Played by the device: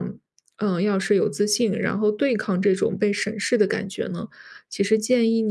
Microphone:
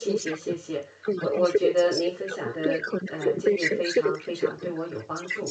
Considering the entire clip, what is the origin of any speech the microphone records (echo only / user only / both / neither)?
both